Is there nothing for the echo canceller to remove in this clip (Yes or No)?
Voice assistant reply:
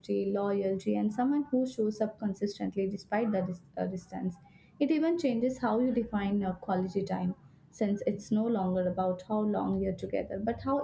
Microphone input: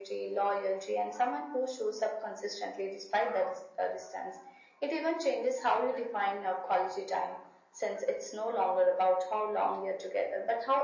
No